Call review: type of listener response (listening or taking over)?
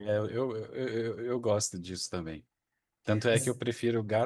listening